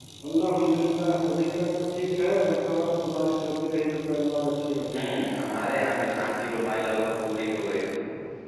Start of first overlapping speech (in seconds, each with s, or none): none